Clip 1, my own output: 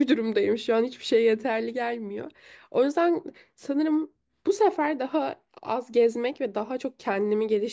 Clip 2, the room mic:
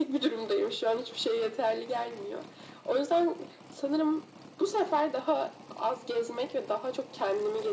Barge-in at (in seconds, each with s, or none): none